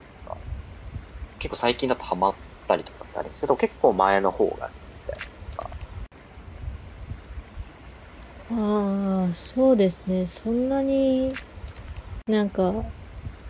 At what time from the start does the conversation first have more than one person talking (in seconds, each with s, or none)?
none